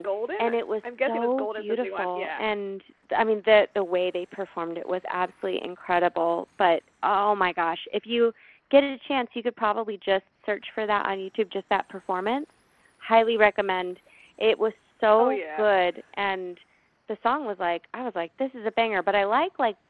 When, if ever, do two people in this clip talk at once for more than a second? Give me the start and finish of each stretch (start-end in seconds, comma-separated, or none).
0.8-2.4